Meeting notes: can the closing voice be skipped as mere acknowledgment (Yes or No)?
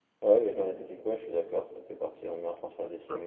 No